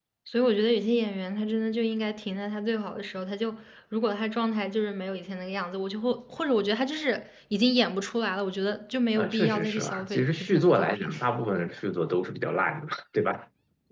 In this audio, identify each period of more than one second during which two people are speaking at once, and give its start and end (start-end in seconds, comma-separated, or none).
9.2-11.1